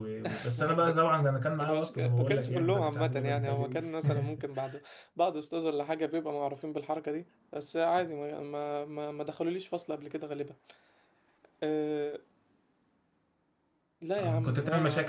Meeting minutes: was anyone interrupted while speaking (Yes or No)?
Yes